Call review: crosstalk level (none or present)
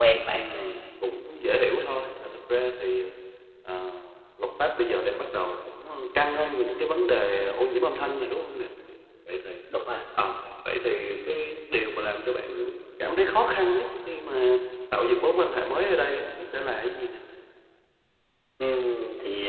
none